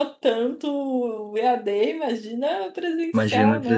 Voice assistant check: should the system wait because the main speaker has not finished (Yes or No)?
No